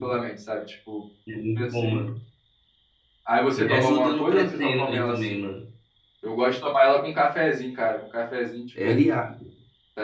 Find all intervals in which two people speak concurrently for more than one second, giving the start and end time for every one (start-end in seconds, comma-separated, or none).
3.6-5.5